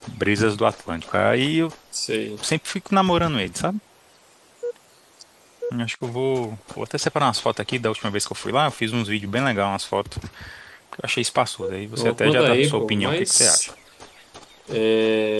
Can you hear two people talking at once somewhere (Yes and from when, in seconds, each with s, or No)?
Yes, from 12.0 s